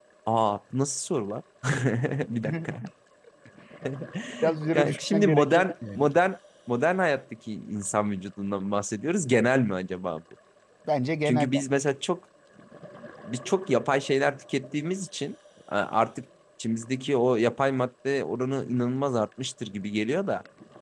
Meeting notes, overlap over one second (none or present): present